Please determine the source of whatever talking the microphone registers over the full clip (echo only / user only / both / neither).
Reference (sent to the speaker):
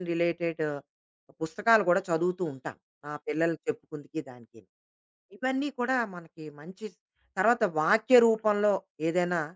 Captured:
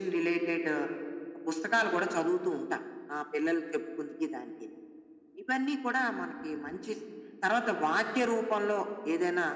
echo only